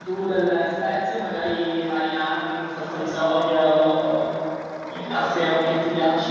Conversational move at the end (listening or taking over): listening